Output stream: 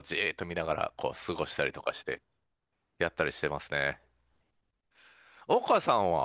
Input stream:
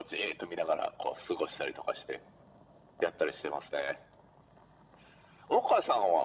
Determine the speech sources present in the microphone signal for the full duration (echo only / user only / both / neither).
echo only